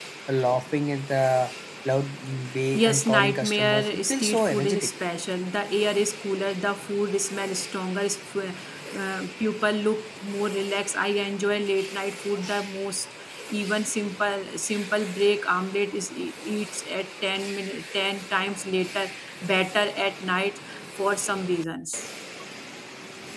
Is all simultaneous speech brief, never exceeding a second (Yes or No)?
No